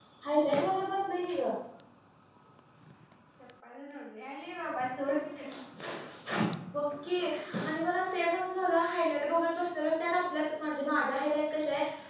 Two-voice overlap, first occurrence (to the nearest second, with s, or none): none